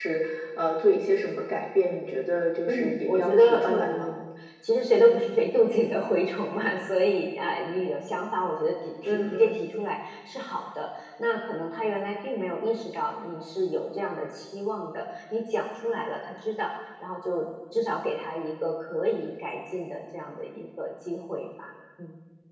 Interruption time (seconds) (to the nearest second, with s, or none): 3 s